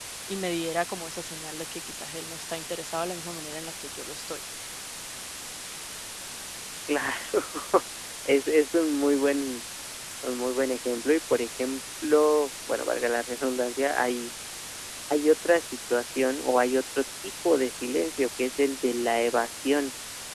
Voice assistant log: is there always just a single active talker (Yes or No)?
Yes